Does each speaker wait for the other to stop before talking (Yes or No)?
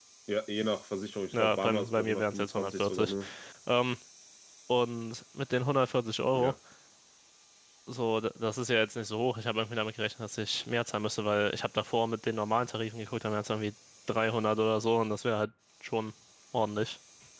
No